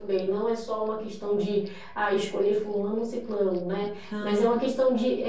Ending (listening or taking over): listening